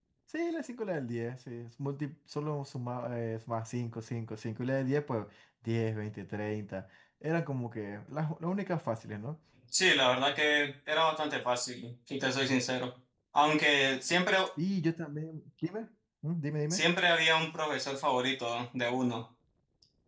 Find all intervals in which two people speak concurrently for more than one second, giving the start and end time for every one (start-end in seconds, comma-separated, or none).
none